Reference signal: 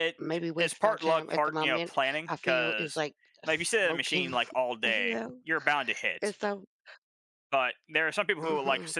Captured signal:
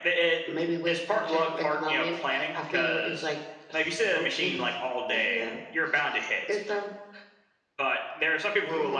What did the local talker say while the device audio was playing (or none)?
none